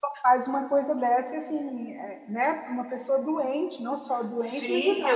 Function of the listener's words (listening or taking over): taking over